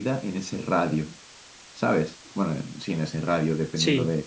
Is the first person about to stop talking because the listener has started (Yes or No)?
Yes